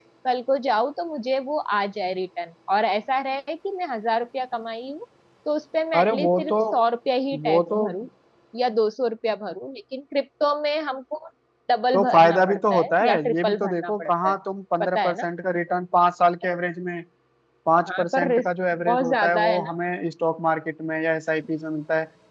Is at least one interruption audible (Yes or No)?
Yes